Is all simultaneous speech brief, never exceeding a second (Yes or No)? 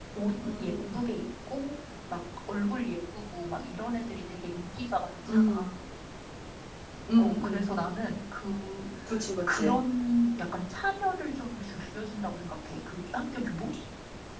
Yes